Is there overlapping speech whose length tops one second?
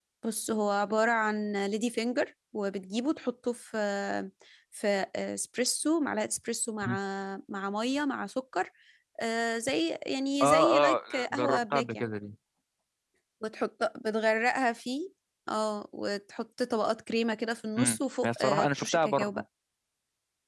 Yes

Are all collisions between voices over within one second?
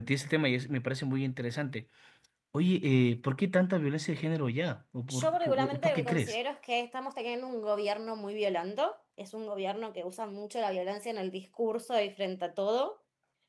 No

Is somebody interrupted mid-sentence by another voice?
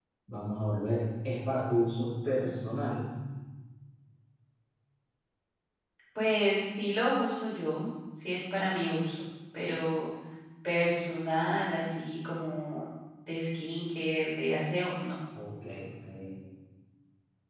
No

